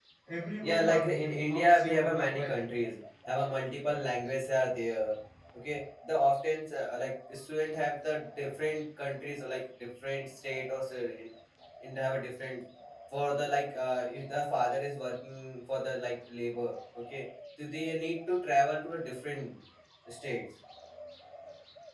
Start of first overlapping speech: 0.6 s

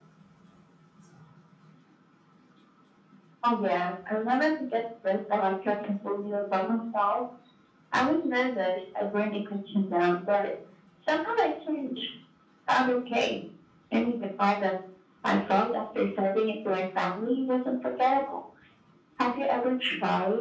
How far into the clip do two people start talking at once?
none

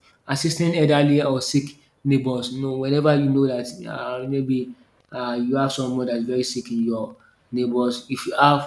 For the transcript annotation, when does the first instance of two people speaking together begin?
none

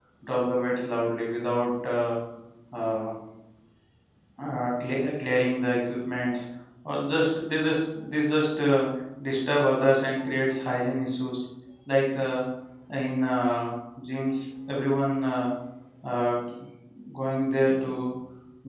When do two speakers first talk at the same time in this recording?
none

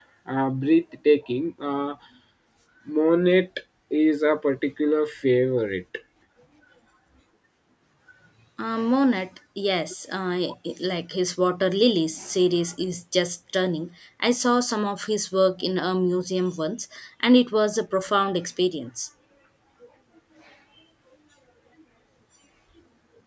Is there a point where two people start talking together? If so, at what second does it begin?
none

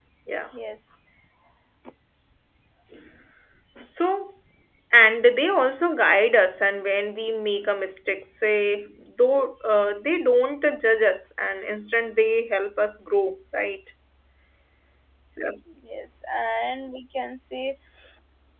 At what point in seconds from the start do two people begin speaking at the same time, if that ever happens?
none

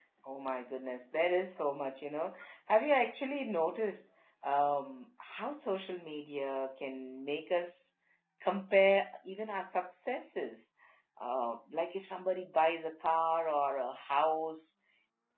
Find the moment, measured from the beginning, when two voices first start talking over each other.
none

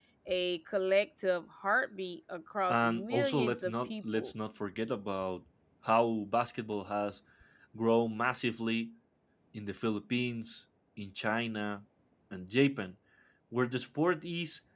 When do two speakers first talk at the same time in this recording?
2.7 s

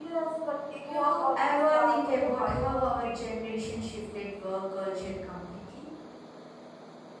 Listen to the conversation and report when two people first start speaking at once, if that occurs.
0.8 s

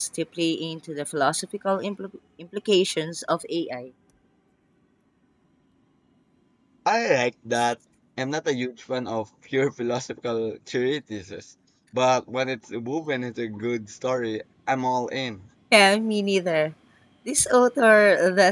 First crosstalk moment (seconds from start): none

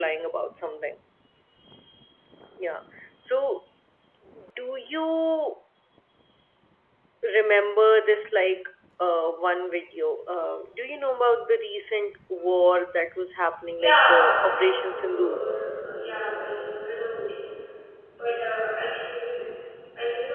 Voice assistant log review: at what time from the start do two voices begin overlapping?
13.8 s

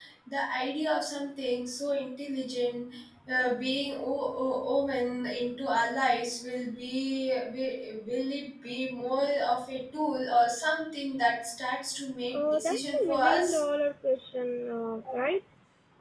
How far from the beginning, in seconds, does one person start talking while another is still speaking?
12.3 s

